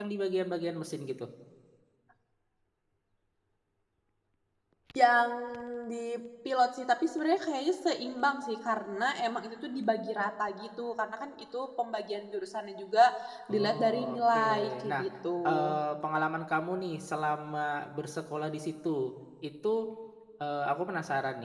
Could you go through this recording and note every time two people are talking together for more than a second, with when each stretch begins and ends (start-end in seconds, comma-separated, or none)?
13.5-15.0